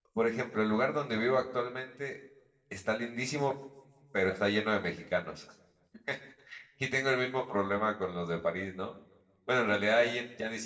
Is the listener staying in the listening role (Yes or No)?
Yes